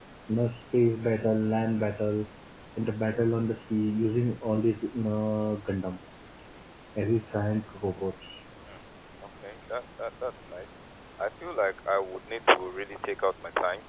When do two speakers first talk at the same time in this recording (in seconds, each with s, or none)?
none